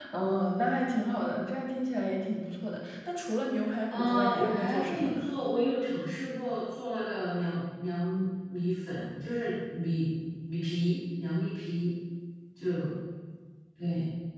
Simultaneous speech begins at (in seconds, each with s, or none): 3.9 s